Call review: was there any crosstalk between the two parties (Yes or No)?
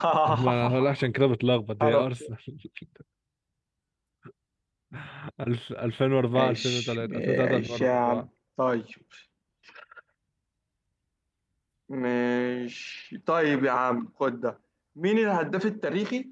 Yes